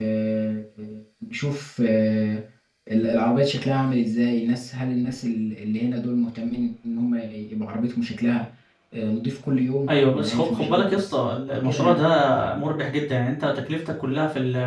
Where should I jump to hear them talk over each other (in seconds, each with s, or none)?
9.9 s